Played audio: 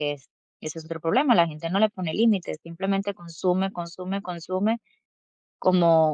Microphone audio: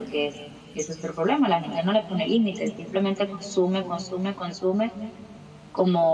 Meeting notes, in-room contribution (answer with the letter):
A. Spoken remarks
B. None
B